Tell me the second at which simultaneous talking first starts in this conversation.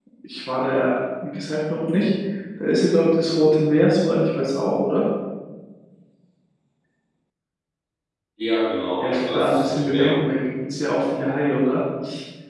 9.0 s

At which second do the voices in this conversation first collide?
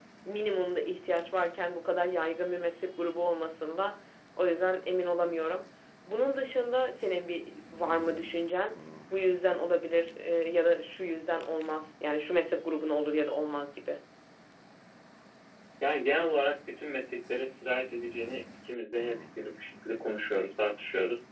none

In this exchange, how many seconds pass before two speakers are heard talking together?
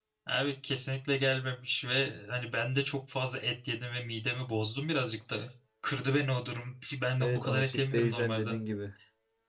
7.2 s

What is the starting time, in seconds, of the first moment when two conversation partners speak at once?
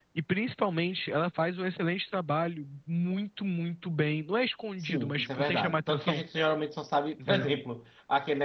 4.8 s

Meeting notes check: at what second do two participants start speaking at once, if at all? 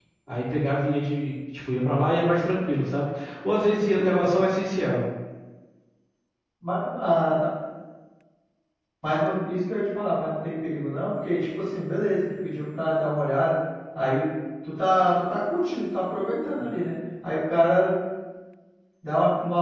none

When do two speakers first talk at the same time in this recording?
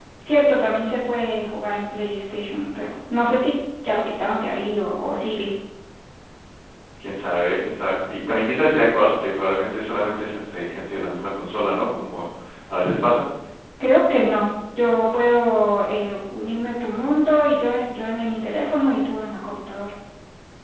none

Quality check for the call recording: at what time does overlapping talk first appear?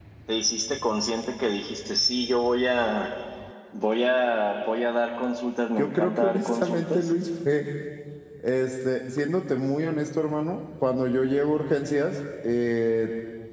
5.8 s

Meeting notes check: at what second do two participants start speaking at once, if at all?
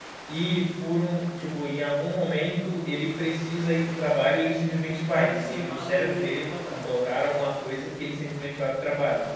4.9 s

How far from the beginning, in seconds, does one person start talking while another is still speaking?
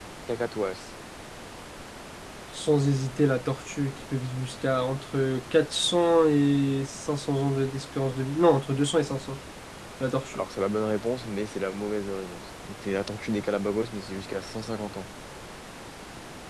none

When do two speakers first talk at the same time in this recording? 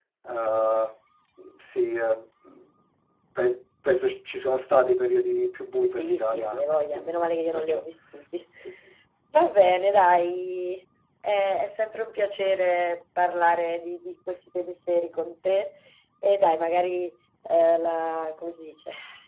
5.9 s

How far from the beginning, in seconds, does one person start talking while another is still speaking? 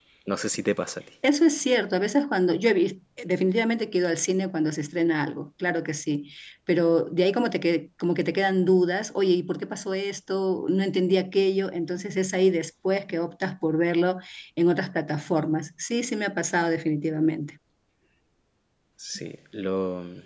none

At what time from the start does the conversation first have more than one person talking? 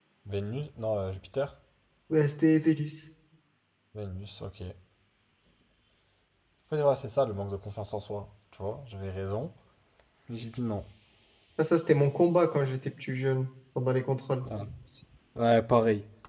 none

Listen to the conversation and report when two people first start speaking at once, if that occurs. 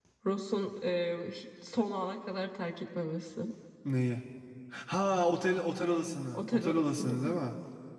5.8 s

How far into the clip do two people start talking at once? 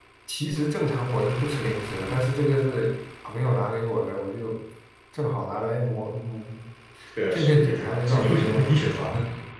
7.3 s

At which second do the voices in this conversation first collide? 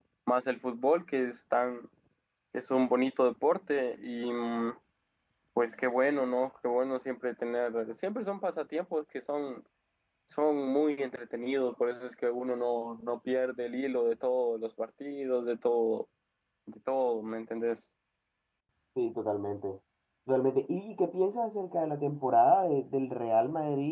none

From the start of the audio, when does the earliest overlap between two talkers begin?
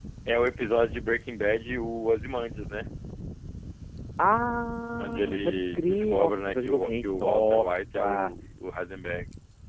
5.0 s

